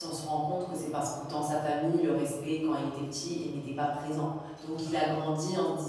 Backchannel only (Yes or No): Yes